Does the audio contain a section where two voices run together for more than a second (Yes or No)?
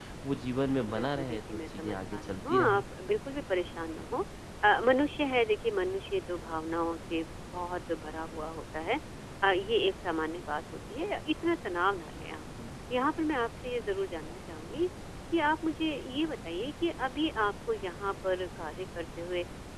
Yes